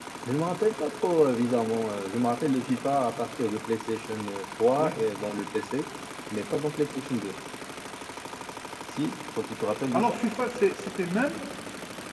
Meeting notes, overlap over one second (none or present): none